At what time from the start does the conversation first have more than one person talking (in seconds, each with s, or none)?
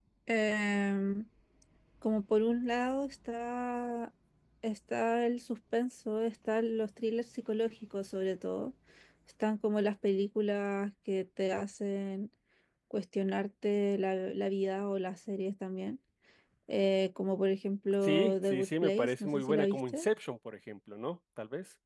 18.0 s